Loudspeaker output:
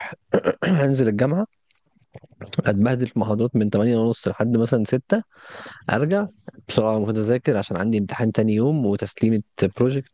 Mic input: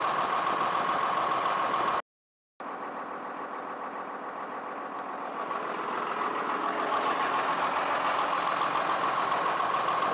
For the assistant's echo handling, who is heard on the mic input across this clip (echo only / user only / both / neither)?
neither